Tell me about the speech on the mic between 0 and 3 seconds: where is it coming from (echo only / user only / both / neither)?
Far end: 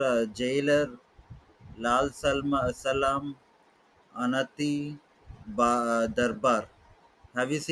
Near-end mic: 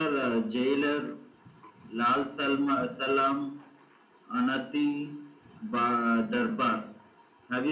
echo only